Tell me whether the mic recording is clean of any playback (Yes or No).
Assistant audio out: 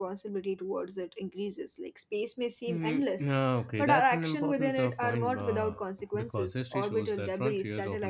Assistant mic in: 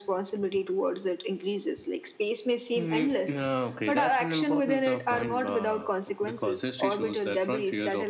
No